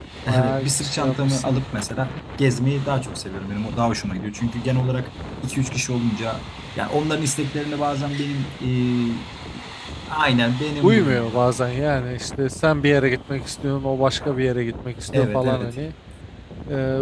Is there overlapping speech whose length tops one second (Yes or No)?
Yes